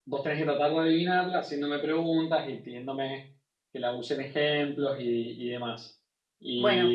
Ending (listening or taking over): listening